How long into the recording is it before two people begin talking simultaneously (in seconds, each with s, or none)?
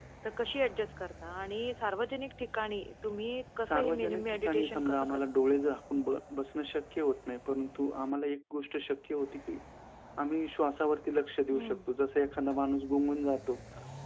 3.6 s